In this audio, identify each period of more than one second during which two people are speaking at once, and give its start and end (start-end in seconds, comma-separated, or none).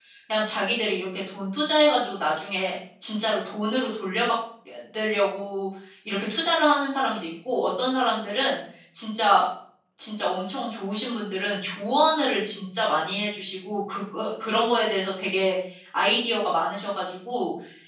none